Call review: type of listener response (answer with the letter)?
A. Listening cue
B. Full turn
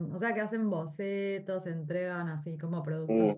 B